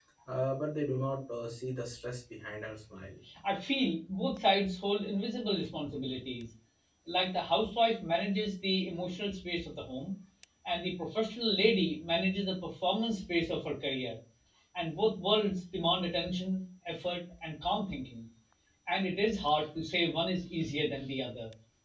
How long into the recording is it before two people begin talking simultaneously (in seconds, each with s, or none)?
none